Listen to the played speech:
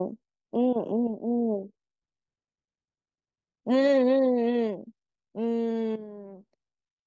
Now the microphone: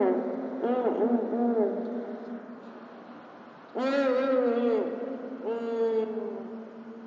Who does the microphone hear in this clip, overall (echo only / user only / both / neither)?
echo only